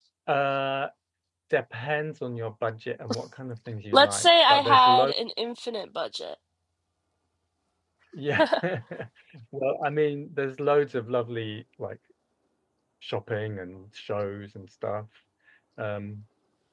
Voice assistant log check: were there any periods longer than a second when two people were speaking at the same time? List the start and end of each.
3.9-5.1

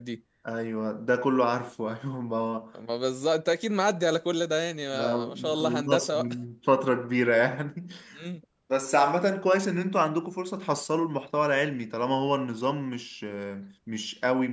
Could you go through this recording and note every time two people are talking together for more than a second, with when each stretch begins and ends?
4.9-6.3

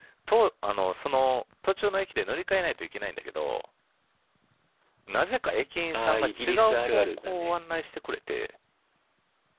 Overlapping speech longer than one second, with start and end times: 5.9-7.5

